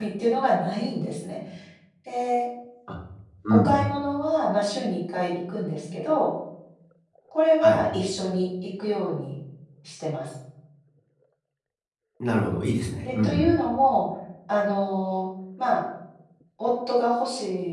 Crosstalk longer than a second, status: none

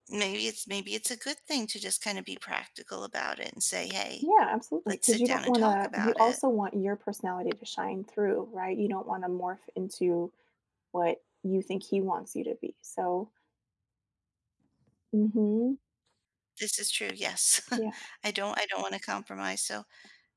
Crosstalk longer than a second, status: present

